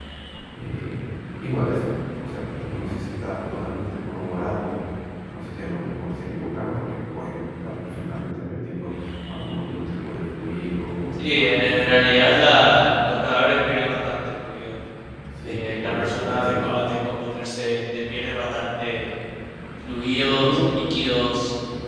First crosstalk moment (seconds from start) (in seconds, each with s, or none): 11.1 s